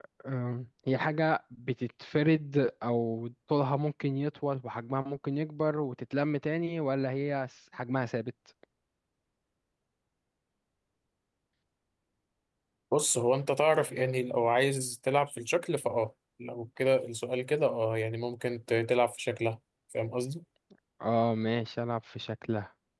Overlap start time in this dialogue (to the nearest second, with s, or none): none